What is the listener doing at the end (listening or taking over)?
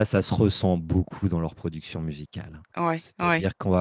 listening